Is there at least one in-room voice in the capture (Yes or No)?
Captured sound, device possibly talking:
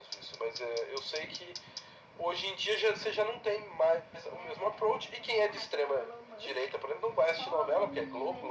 Yes